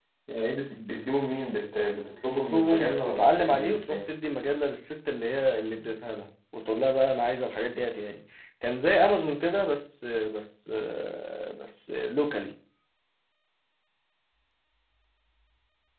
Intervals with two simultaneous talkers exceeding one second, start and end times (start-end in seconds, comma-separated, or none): 2.2-4.0